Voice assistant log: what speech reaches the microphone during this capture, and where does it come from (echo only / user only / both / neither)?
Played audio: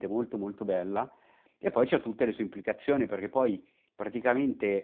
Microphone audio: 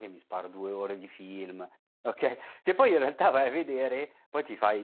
user only